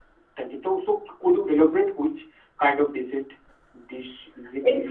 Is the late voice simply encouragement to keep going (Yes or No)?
No